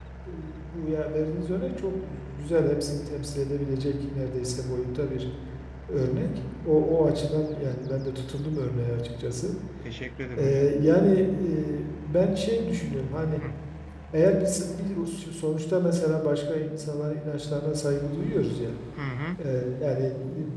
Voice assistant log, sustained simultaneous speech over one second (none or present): none